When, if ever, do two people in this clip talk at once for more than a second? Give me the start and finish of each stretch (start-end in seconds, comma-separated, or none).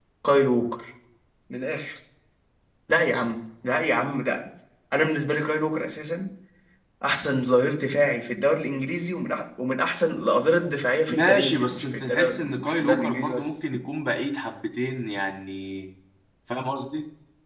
11.1-13.6